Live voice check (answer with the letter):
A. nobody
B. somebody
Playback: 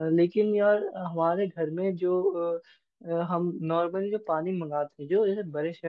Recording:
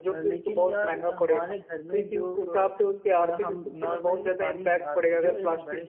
B